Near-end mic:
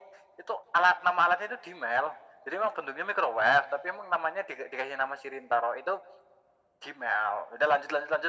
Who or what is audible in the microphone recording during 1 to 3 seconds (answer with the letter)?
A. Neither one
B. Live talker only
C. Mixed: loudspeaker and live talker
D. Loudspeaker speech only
D